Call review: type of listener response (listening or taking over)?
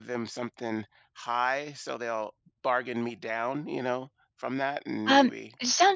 taking over